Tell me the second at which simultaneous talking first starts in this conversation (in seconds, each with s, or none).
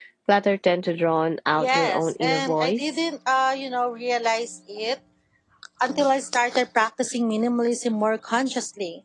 1.6 s